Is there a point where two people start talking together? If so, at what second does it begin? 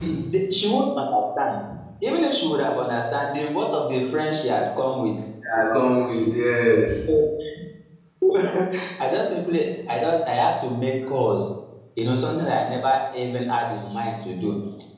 none

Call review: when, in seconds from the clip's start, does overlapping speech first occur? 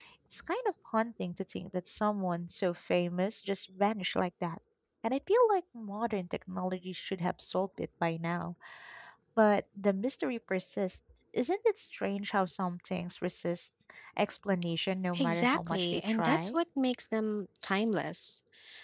15.2 s

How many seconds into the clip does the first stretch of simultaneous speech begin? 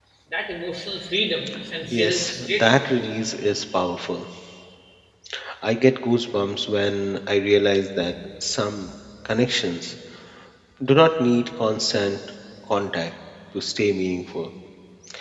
1.9 s

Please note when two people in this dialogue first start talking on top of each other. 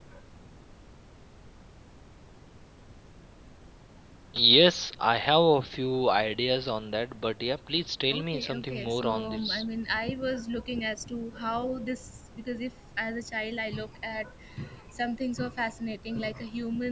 8.1 s

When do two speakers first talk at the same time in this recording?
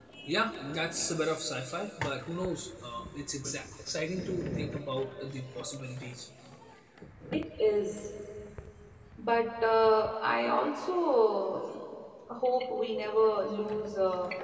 none

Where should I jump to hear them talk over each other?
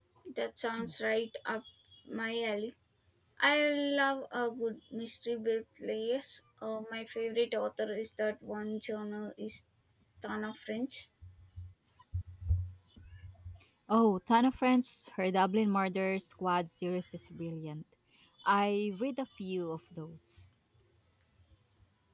none

